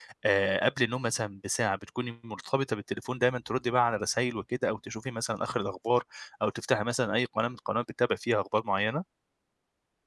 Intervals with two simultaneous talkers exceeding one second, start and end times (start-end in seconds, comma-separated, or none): none